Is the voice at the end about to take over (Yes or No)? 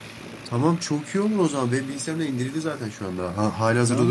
Yes